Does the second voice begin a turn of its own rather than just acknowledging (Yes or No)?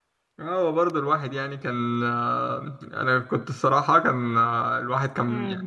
No